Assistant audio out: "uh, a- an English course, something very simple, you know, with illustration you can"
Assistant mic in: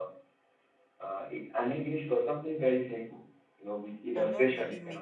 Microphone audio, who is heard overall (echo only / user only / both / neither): both